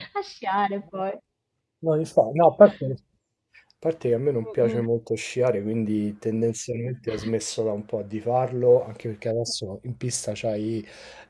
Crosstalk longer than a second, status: none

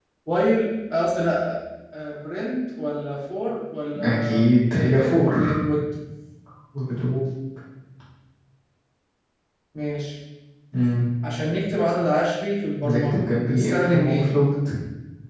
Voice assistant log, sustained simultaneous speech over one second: present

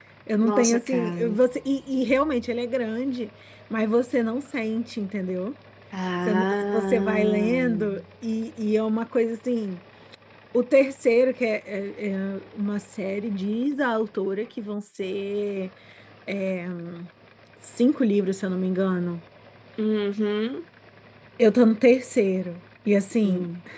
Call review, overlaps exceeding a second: present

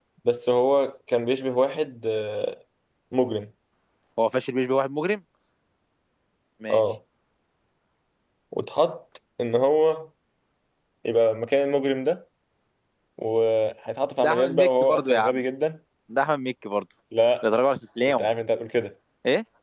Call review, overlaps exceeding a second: present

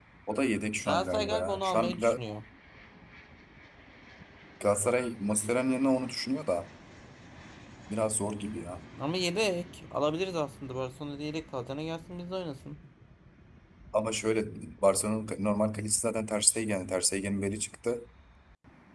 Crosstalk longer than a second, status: present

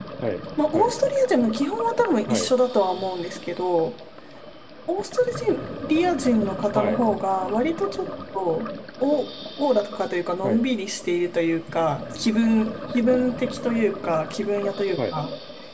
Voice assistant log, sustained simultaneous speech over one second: none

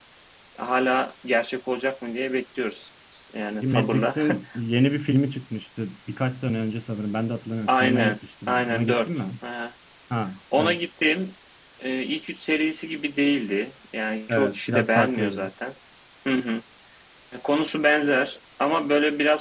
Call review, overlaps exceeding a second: present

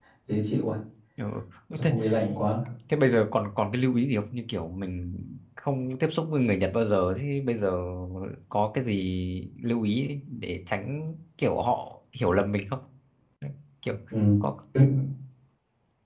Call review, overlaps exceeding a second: none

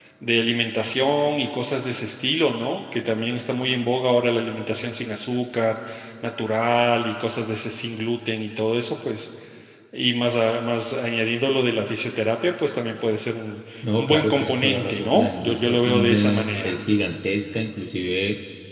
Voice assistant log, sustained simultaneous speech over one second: present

